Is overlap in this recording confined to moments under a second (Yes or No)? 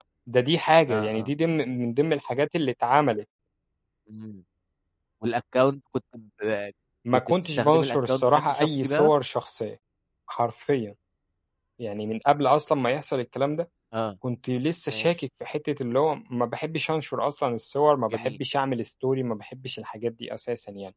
No